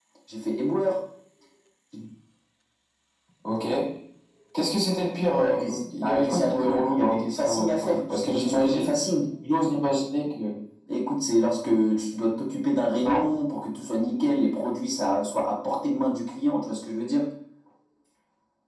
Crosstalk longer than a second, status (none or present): present